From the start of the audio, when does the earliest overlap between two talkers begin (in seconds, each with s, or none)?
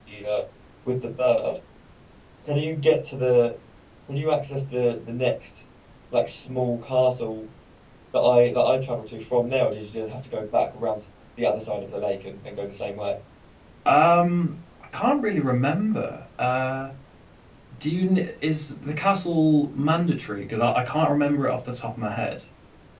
none